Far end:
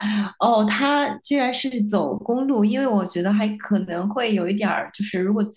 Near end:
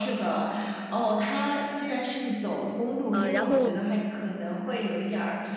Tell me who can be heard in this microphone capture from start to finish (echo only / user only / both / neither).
both